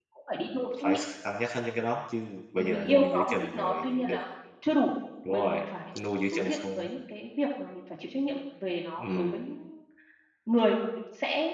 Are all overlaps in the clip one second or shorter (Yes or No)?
No